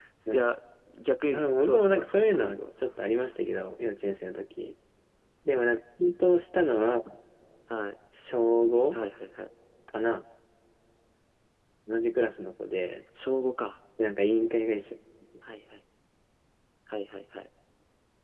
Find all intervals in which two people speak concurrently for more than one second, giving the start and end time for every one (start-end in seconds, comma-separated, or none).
1.3-2.6